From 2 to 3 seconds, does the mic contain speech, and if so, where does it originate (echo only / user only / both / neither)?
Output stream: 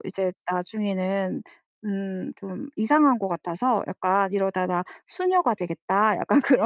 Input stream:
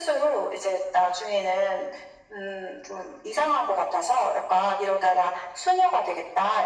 echo only